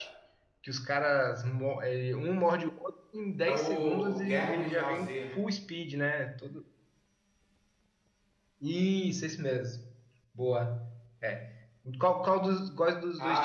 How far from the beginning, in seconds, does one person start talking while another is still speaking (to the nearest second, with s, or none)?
3 s